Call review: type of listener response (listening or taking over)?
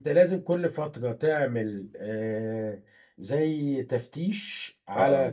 listening